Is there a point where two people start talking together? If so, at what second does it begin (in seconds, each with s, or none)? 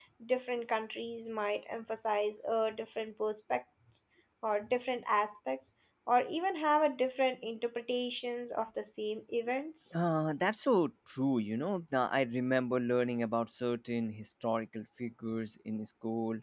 none